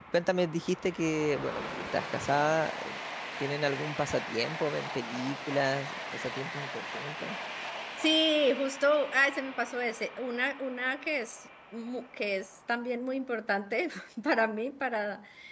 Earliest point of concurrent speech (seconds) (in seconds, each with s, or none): none